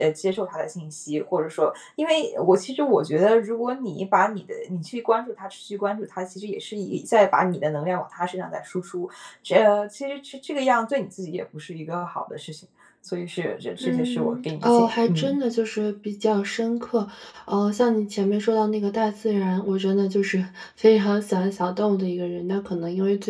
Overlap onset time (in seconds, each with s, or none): 13.8 s